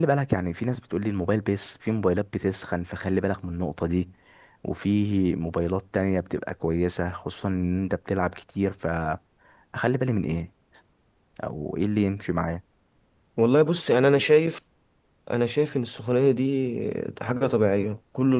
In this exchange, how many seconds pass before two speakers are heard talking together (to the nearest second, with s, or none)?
none